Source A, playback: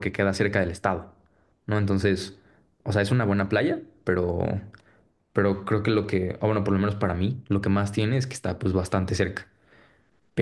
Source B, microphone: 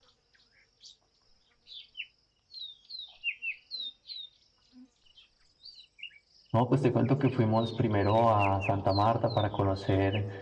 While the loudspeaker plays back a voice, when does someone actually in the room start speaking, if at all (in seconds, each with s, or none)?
6.5 s